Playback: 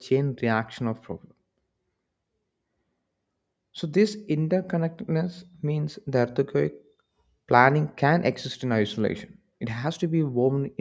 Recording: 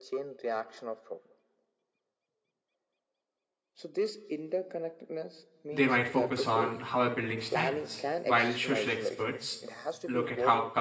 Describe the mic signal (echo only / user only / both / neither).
both